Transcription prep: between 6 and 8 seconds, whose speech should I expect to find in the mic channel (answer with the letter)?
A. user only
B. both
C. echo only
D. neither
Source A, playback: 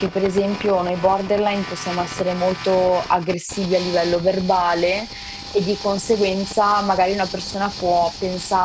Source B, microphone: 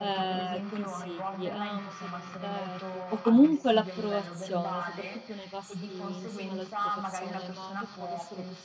B